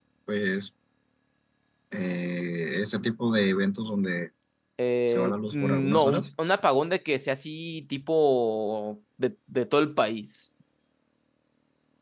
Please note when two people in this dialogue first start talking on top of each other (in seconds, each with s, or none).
5.1 s